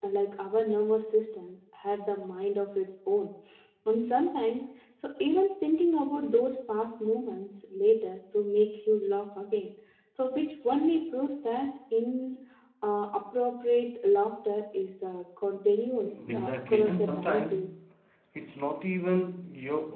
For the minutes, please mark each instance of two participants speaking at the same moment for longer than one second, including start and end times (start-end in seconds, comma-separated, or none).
16.0-17.6